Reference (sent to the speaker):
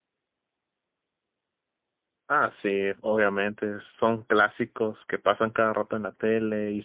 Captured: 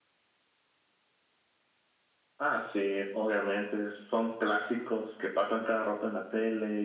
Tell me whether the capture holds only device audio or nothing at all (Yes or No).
Yes